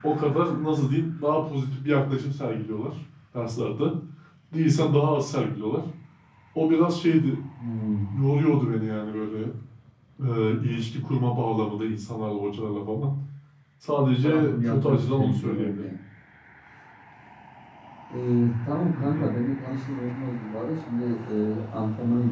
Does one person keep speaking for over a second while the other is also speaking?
Yes, from 14.2 s

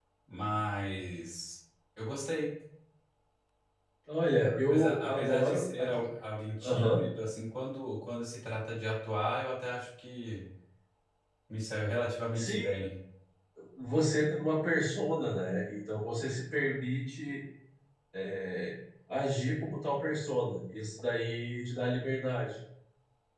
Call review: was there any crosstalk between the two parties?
Yes, from 4.7 s

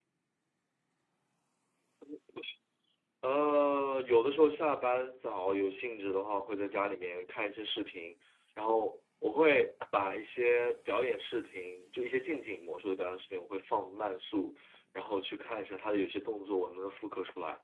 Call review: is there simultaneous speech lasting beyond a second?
No

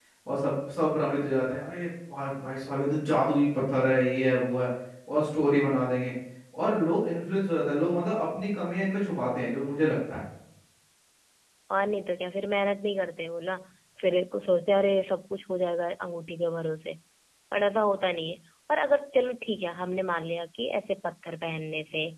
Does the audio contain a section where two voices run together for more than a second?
No

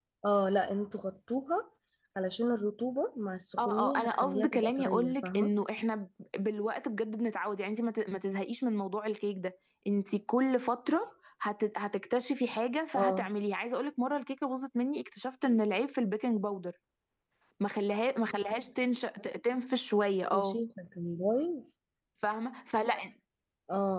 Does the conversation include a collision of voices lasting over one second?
Yes, from 3.6 s

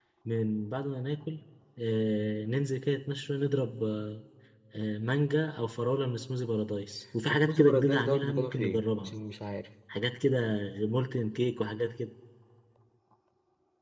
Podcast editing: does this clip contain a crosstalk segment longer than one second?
Yes, from 7.3 s

